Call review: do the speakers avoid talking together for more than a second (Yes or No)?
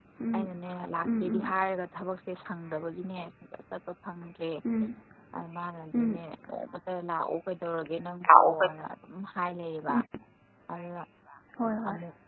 Yes